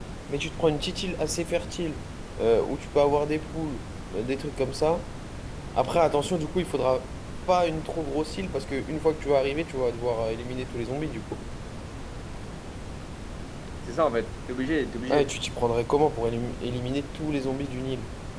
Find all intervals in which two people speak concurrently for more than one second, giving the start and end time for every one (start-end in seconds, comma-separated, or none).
none